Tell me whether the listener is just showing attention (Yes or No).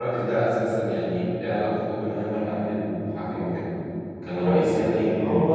No